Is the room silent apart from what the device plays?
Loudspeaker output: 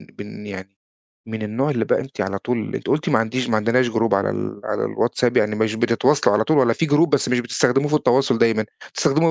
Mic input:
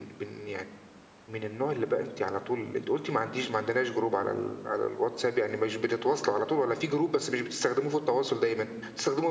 Yes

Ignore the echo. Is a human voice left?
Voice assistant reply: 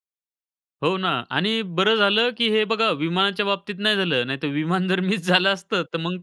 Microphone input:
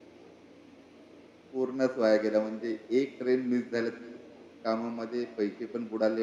Yes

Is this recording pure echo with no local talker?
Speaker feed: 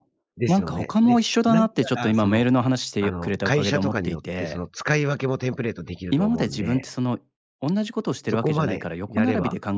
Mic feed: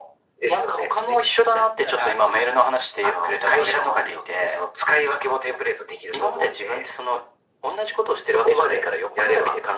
Yes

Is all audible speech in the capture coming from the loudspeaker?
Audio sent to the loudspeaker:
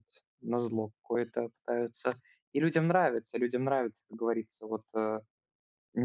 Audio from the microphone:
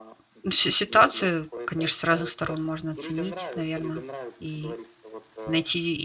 No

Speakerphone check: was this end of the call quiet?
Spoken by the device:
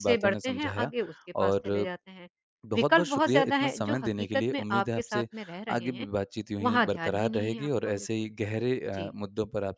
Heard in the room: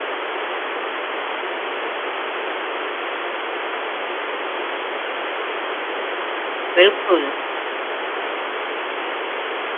No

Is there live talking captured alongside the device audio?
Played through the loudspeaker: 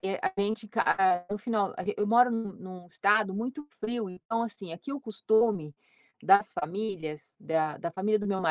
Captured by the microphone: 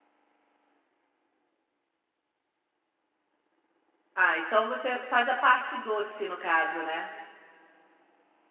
Yes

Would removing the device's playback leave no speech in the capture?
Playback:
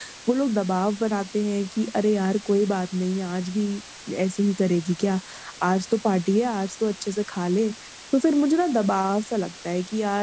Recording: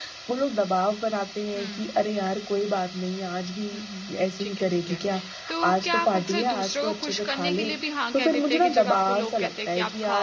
No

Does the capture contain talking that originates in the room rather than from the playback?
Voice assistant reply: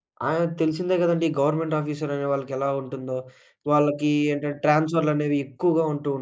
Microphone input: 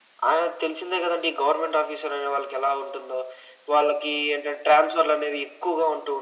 No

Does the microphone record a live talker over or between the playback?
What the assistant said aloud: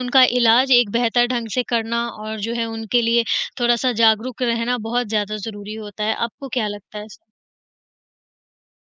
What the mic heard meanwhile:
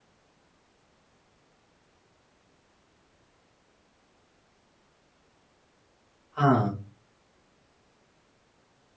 Yes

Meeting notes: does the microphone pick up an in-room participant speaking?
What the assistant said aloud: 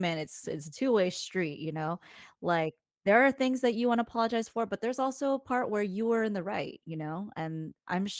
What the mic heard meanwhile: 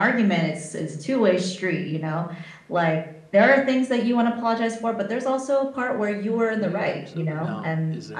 Yes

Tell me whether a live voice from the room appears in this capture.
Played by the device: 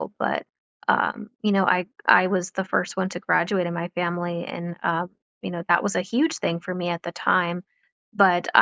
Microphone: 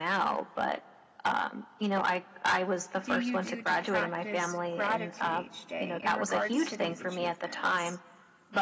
Yes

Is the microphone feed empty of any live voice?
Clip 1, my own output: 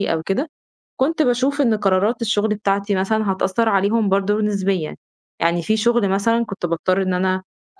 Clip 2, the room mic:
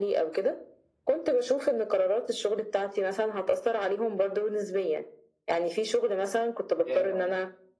No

